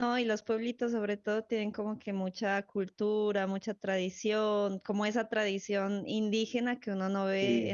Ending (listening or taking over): listening